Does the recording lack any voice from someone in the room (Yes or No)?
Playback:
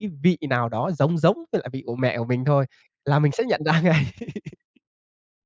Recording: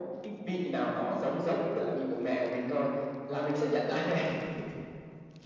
Yes